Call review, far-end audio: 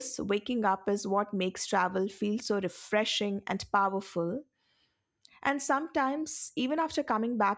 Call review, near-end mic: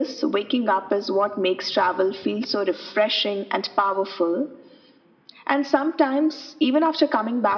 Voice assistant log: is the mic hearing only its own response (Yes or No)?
Yes